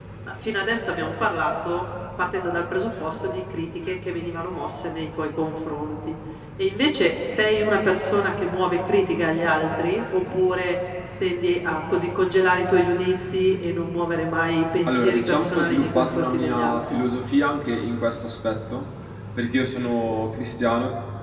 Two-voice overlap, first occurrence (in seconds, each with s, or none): 14.9 s